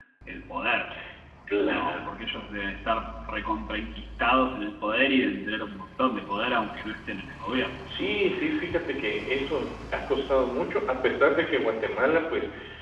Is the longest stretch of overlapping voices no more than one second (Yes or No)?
Yes